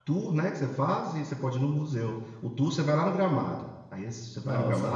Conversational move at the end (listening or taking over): listening